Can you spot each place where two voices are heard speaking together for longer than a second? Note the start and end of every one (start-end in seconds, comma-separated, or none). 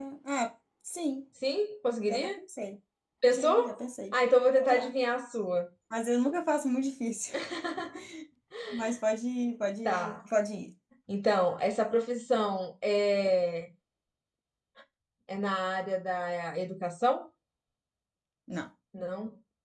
none